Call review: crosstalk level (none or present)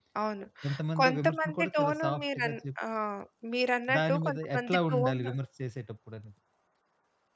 present